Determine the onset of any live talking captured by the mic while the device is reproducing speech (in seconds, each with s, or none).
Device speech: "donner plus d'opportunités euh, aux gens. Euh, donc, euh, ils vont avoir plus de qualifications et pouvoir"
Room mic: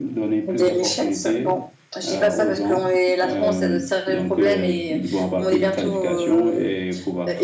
0.5 s